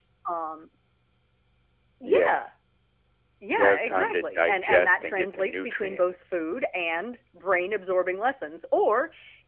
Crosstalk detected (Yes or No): Yes